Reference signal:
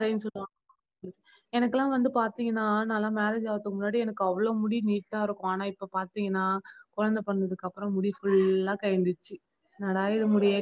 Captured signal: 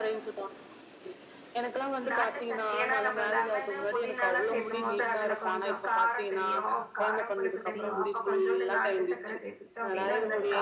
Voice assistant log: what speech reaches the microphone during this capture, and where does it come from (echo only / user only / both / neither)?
both